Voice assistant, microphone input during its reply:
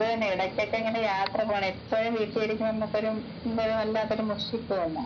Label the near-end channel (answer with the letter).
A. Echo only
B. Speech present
A